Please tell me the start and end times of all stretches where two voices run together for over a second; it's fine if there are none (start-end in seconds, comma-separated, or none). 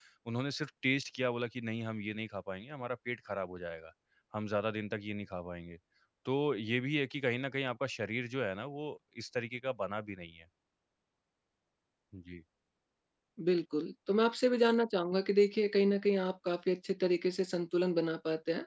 none